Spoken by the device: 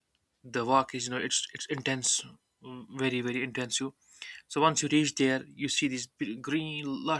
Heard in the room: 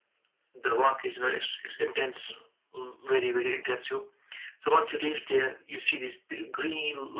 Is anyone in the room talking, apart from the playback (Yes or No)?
No